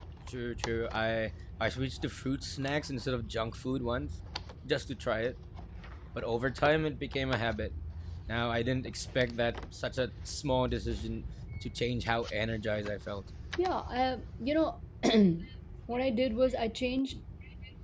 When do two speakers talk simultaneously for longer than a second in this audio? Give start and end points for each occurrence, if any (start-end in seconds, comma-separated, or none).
none